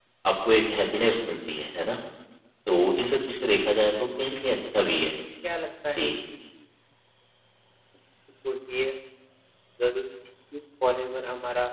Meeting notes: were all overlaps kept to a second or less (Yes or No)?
Yes